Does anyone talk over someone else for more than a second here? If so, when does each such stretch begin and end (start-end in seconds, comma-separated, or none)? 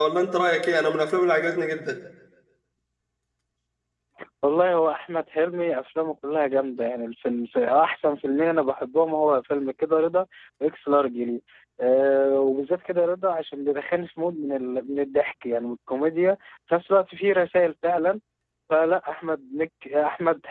none